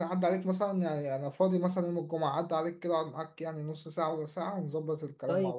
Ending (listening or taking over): taking over